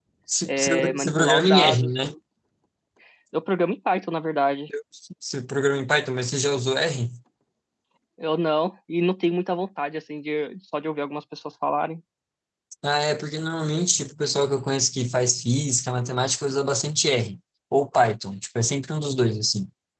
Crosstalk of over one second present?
Yes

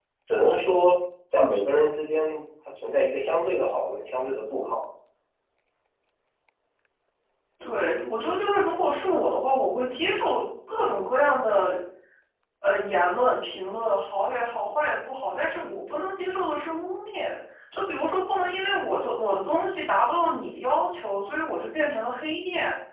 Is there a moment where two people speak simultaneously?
No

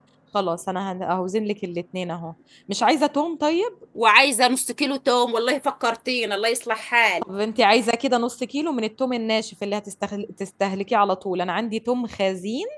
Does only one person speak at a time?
Yes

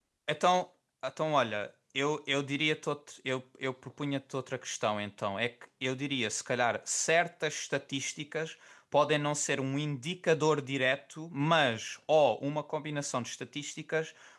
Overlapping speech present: No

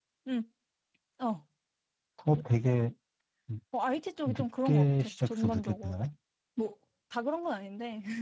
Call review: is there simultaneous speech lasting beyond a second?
Yes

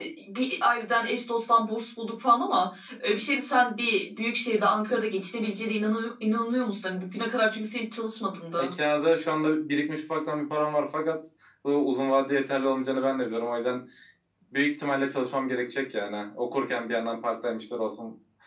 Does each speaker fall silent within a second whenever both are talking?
Yes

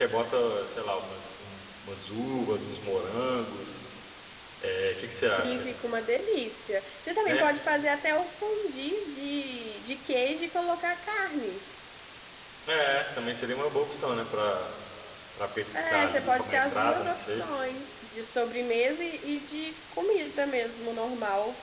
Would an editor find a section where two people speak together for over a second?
Yes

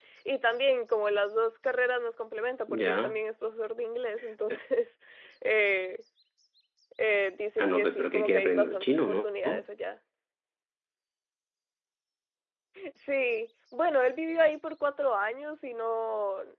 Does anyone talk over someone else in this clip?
Yes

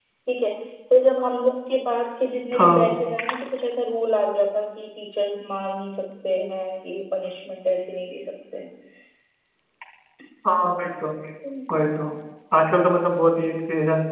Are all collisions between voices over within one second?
Yes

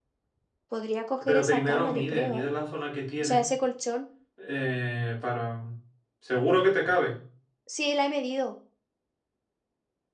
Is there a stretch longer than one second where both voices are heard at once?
Yes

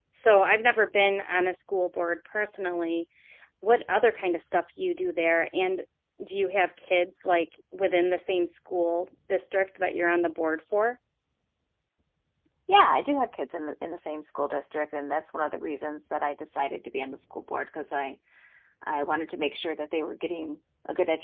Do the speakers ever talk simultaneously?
No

